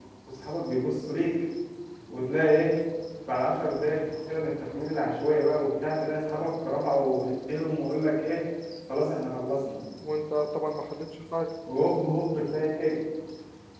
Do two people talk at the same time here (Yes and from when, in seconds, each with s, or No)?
No